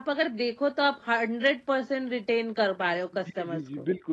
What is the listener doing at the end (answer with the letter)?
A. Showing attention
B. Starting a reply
B